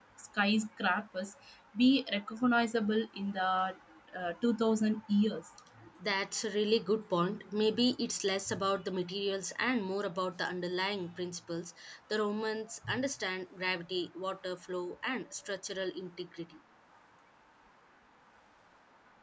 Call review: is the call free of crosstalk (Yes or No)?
Yes